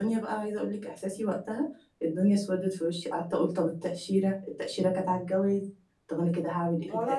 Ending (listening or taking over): taking over